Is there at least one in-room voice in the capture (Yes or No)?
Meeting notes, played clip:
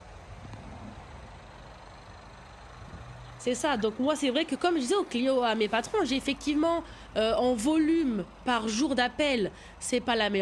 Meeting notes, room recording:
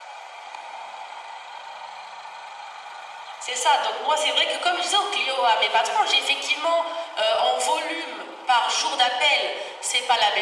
No